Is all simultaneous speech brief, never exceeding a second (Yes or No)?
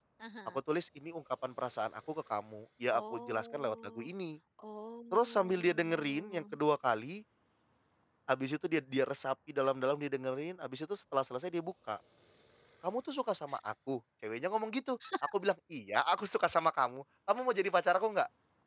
No